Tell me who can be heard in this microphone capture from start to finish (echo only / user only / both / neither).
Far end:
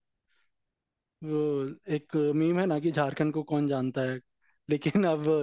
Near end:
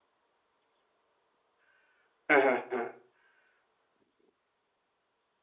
user only